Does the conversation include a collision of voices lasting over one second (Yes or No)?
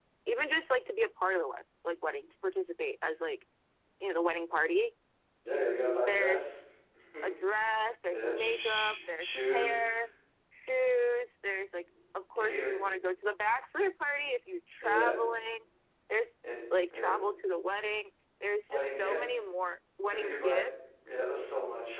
Yes